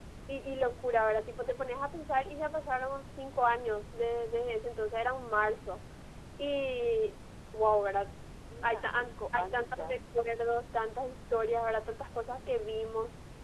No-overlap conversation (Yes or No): No